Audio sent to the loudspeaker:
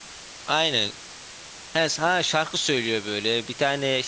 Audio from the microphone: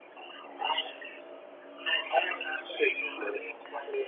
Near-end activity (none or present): none